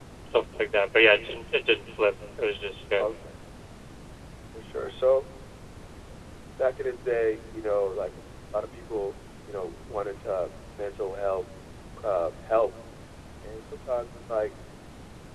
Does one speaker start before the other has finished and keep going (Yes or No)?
No